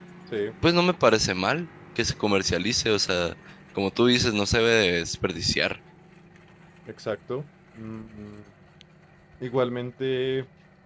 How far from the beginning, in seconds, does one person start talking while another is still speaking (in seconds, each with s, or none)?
none